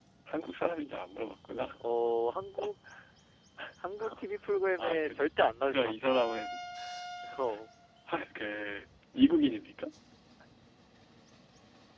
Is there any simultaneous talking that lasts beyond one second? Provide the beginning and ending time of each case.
none

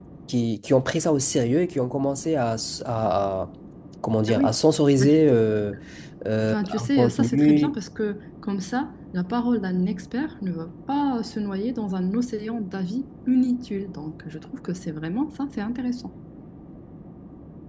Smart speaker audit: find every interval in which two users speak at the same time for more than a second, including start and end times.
6.5-7.8

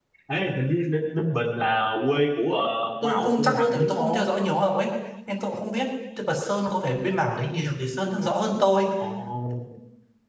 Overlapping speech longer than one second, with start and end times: 3.0-4.2

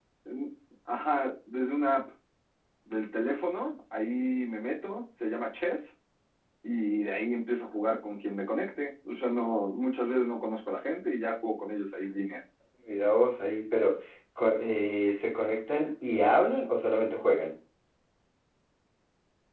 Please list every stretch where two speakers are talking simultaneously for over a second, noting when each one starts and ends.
none

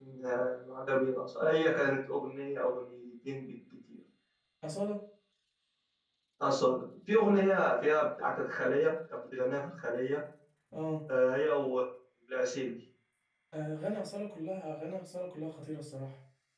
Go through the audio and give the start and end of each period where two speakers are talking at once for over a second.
none

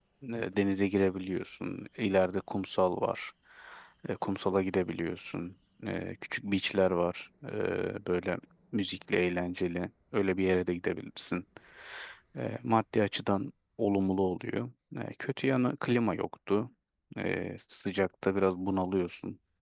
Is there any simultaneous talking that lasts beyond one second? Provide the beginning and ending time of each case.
none

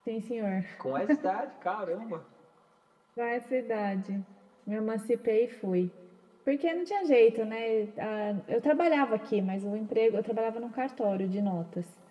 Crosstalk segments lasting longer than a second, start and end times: none

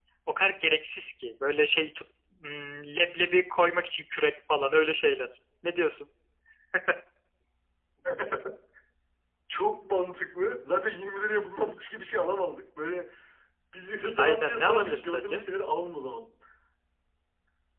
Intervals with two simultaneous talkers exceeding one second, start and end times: 14.2-15.4

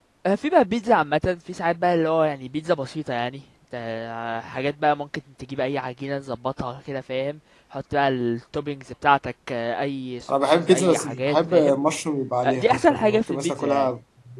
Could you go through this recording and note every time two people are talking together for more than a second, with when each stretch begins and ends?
10.3-11.8, 12.4-13.9

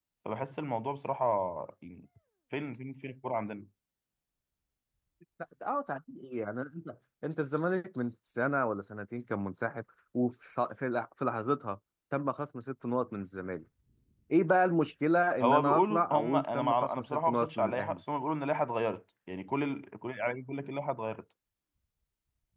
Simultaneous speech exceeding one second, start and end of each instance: 15.4-18.0

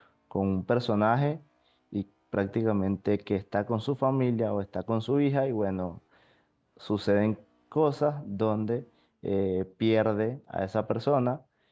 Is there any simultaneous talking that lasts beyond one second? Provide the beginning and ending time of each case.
none

